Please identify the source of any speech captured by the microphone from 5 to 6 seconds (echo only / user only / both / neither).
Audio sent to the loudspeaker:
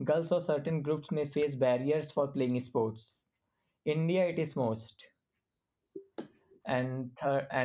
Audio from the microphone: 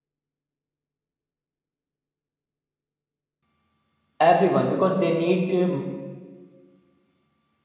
user only